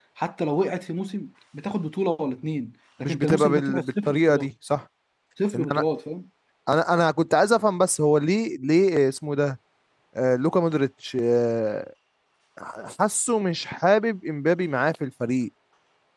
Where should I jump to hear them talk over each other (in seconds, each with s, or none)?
3.0 s